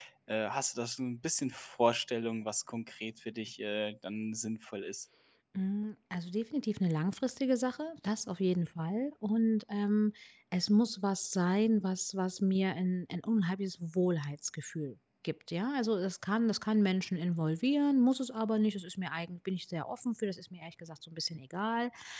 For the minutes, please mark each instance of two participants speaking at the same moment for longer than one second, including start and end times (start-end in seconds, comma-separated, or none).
none